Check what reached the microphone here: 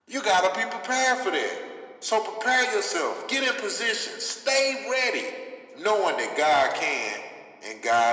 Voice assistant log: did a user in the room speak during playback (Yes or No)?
No